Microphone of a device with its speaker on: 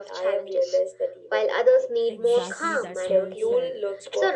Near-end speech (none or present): present